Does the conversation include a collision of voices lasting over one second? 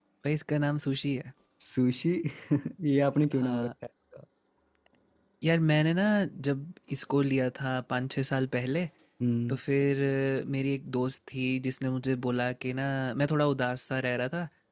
No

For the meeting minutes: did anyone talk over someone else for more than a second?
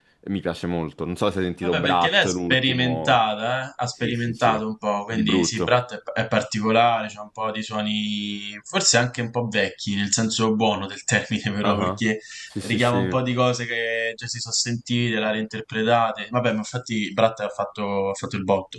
Yes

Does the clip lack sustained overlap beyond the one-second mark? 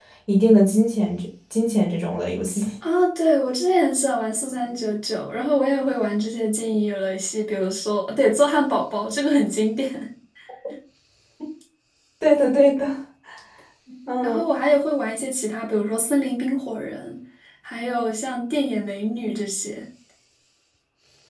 Yes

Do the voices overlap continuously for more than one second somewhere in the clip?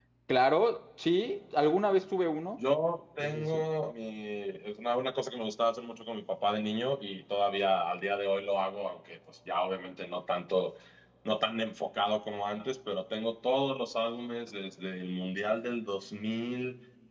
No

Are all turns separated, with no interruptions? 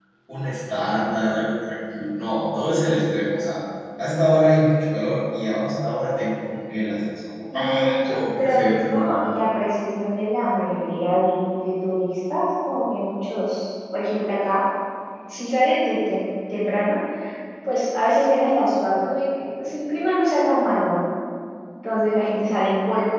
No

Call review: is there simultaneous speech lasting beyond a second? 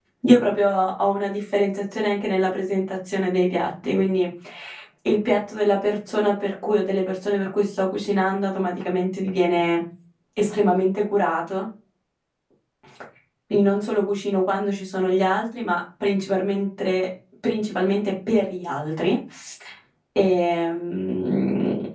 No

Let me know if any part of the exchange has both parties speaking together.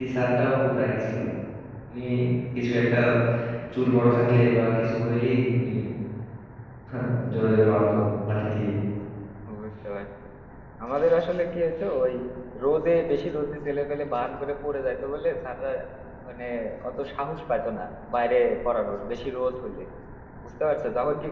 No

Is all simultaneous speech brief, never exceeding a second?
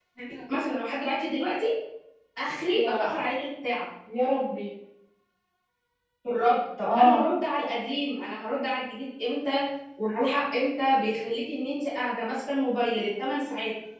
Yes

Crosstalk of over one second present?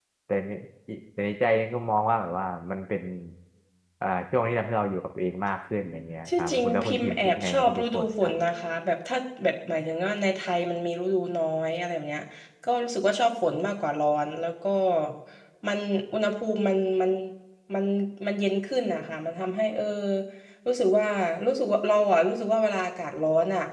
Yes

